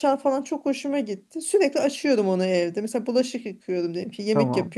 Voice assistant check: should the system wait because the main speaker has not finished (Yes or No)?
Yes